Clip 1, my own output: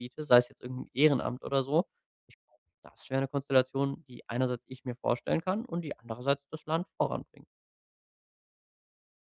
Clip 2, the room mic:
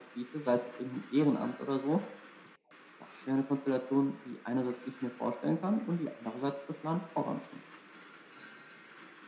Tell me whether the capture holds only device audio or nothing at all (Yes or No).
Yes